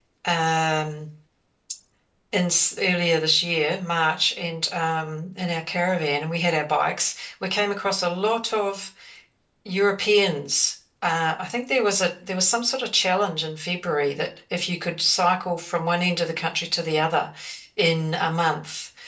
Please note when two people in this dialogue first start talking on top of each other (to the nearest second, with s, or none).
none